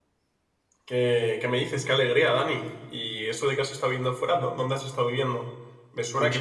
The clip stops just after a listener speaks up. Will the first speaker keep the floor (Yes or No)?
Yes